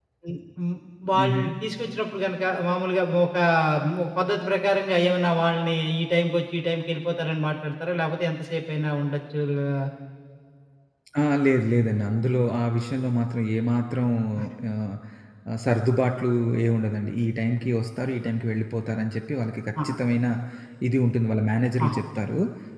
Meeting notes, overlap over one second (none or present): none